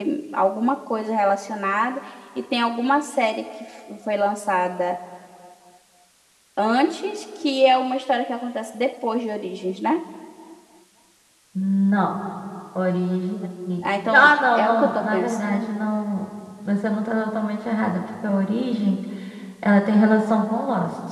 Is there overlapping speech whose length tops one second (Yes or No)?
Yes